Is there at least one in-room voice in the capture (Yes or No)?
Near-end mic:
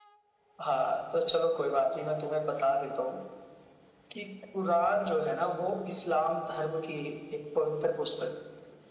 No